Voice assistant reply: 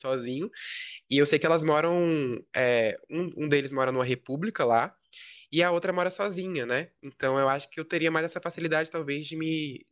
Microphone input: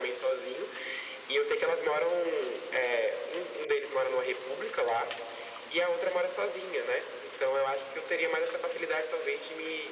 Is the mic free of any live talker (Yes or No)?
Yes